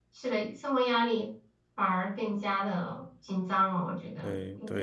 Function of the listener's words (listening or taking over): taking over